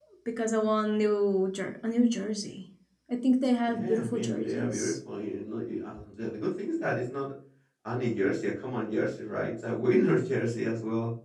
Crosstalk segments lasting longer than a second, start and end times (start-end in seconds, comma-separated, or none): 3.7-4.9